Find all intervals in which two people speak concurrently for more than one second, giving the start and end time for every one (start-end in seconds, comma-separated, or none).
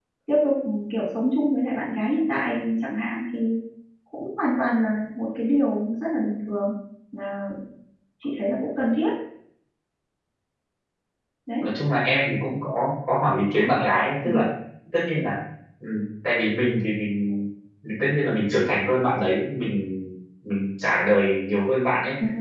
none